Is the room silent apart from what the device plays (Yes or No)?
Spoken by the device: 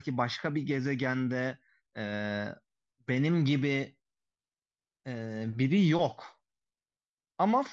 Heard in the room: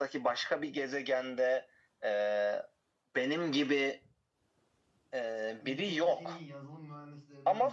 No